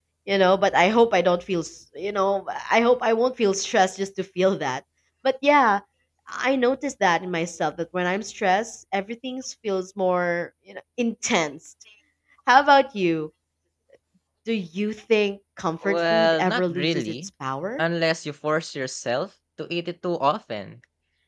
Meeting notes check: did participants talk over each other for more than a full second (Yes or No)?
Yes